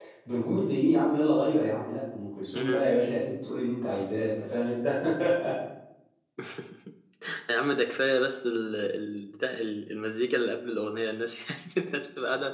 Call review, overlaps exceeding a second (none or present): none